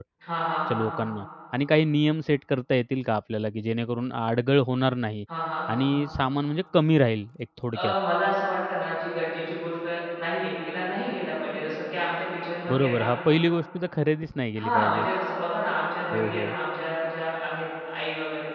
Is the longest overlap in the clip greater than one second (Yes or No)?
No